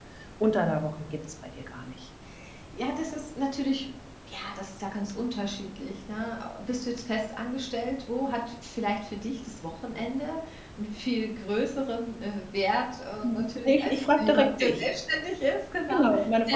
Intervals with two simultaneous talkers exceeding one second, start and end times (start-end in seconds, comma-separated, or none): 13.2-14.9